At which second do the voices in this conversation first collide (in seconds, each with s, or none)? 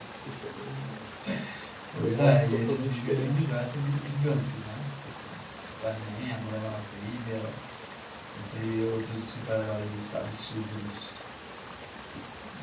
2.0 s